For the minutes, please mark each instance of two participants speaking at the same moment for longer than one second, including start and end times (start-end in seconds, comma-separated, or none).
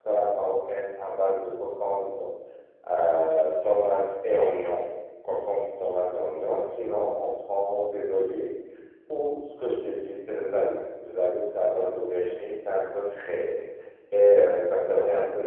none